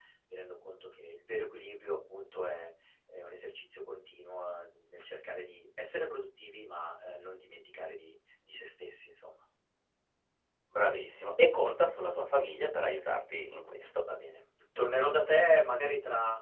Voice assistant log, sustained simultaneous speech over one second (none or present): none